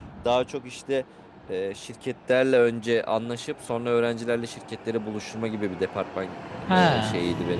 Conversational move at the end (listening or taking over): listening